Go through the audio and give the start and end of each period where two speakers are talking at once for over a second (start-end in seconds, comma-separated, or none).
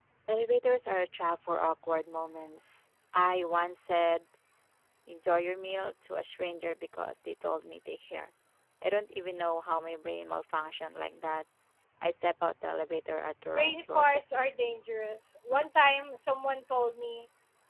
13.4-14.7